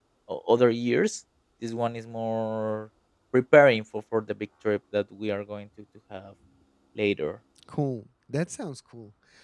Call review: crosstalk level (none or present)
none